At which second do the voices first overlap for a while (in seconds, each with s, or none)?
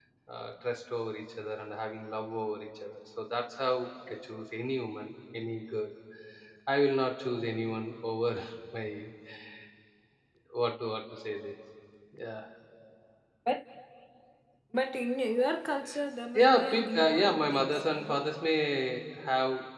16.3 s